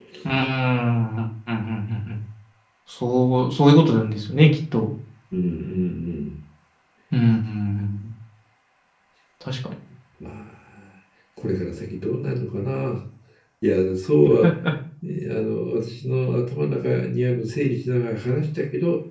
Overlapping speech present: No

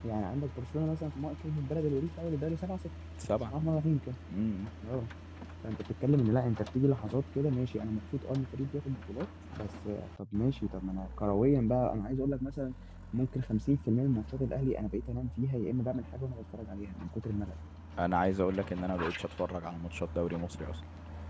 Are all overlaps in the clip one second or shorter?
Yes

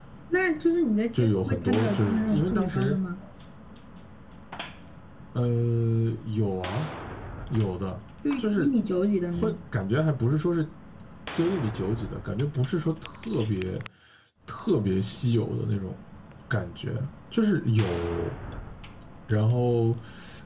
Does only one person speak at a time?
No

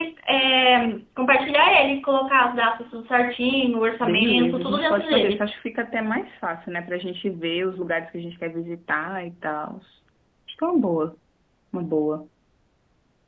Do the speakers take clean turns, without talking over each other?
No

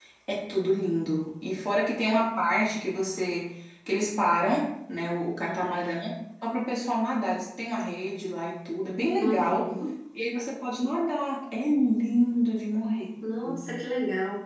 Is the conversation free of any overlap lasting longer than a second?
Yes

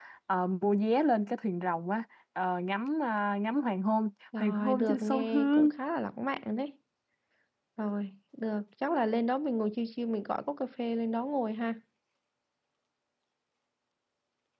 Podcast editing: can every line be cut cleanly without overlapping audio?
No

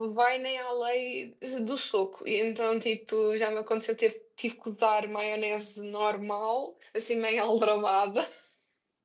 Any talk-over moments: No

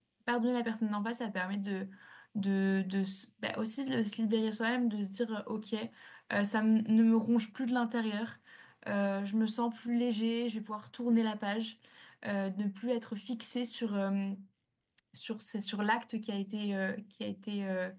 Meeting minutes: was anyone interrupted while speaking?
No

